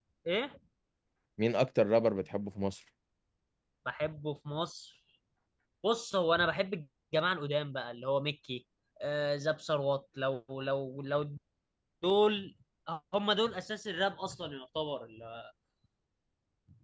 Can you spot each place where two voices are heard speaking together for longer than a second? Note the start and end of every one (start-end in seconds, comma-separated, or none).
none